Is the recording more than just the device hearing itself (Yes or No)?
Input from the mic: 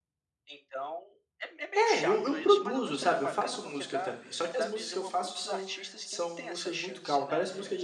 Yes